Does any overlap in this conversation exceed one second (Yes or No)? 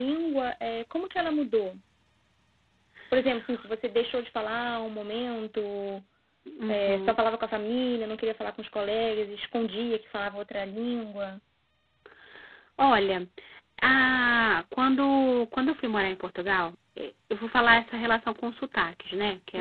No